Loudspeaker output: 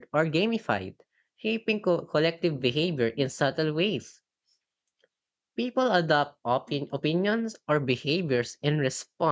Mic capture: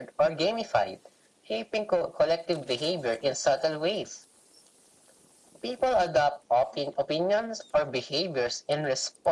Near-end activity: none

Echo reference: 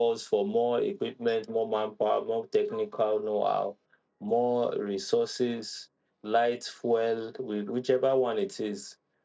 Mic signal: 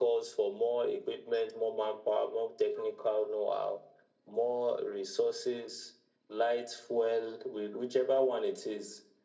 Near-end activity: none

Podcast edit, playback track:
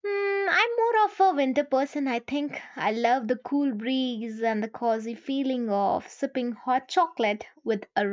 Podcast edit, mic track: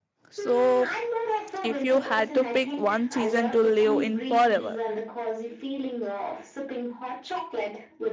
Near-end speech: present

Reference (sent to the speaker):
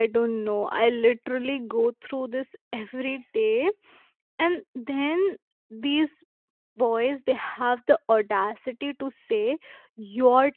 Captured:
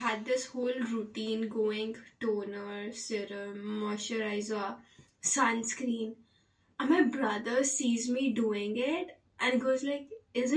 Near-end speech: present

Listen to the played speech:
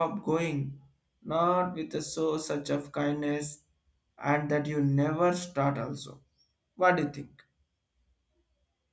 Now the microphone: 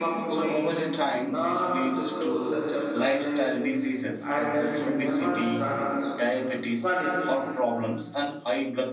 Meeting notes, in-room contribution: present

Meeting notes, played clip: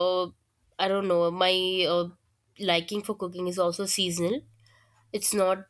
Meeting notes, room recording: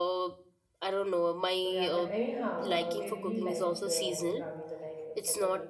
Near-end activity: present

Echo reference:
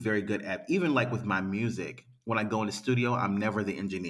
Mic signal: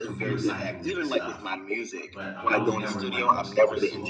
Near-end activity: present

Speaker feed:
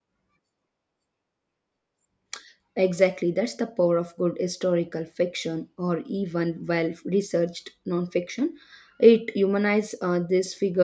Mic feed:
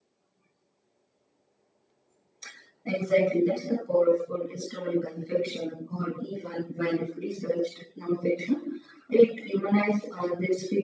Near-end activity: none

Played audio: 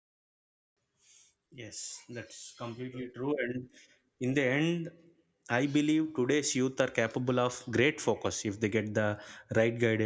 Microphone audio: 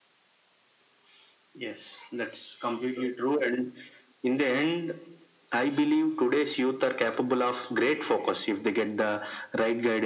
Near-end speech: none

